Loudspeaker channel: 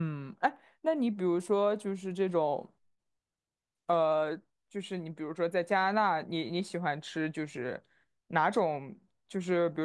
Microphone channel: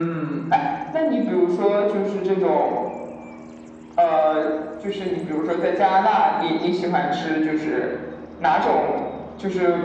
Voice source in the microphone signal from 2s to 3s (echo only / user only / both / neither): echo only